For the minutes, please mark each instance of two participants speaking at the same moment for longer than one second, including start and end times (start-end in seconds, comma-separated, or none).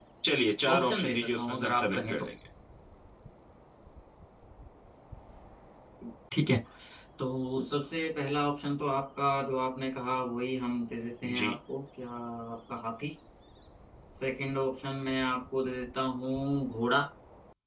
0.7-2.2